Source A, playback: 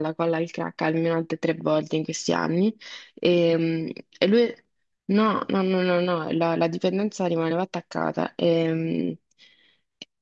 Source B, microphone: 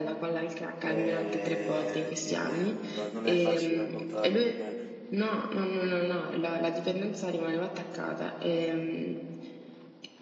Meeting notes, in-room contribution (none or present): present